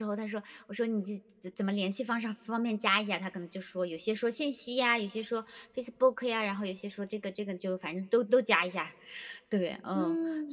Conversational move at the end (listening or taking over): taking over